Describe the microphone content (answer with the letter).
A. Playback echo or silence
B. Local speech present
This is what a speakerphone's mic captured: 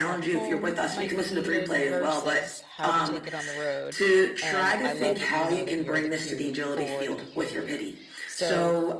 B